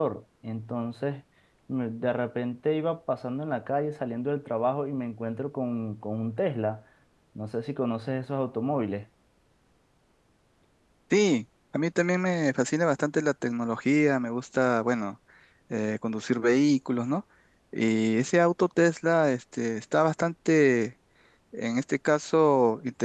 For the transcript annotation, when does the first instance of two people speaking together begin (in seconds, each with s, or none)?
none